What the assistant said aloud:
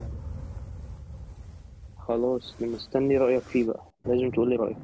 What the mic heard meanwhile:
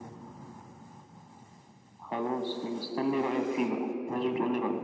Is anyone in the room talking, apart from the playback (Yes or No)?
No